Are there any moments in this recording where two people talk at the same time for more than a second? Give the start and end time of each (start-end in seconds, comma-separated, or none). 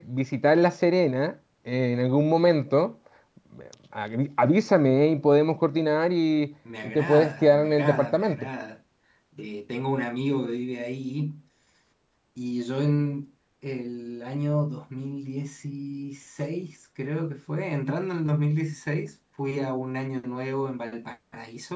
6.8-8.5